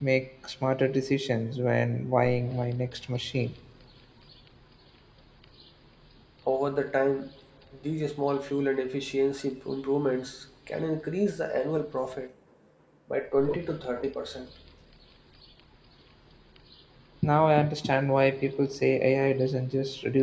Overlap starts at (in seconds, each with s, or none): none